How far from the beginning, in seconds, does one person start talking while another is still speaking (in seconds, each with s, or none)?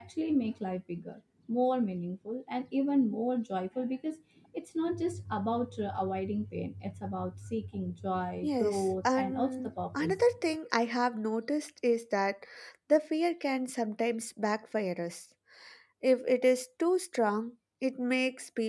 8.4 s